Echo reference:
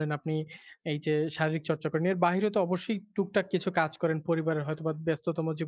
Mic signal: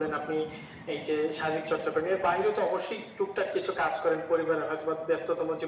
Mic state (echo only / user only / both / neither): echo only